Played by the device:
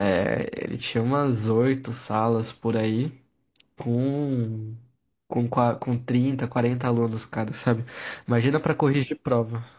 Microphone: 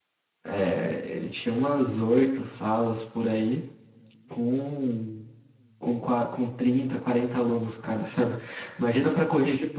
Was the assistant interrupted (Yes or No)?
No